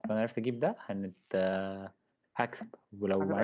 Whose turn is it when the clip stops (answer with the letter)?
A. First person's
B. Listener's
A